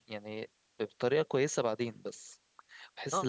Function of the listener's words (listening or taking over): taking over